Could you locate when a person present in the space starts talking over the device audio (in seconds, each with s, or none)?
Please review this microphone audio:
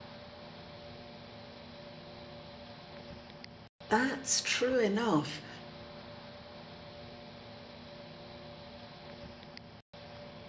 3.9 s